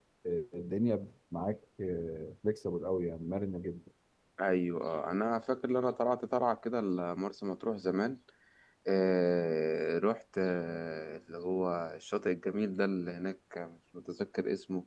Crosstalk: none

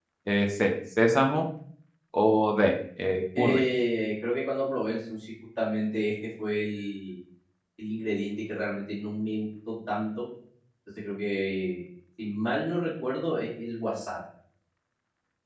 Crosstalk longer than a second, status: none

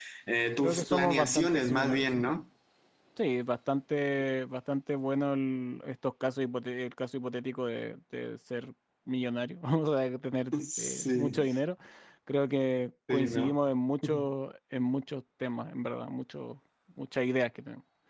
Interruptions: present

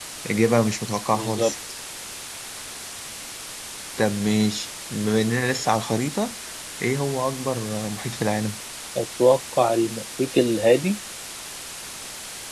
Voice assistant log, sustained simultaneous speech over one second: none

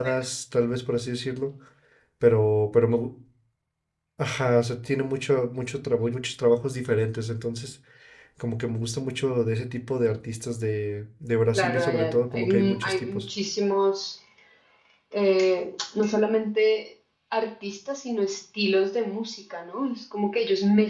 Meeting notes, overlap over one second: present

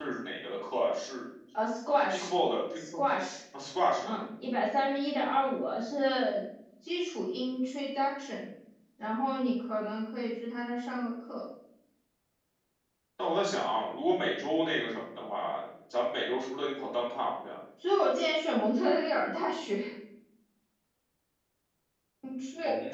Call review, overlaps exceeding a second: none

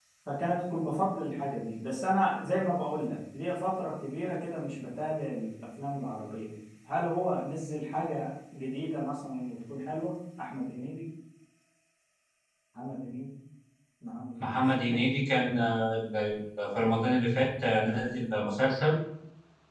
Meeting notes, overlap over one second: none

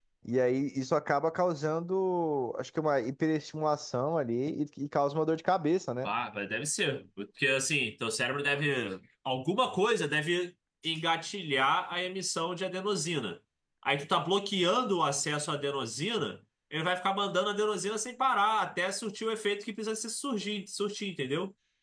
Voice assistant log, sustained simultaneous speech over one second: none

